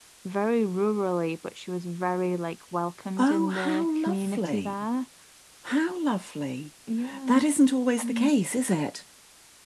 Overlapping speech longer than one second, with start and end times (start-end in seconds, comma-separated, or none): 3.2-4.8